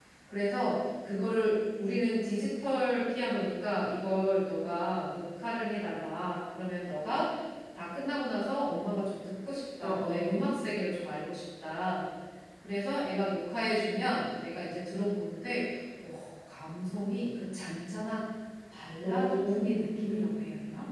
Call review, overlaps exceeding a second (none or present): present